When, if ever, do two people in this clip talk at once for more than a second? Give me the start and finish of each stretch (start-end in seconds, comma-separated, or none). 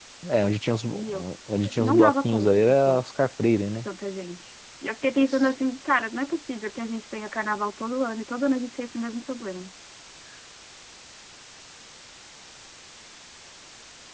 1.8-3.0